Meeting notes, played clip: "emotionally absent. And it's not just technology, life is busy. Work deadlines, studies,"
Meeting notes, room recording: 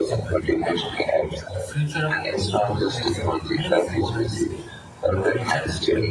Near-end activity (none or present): present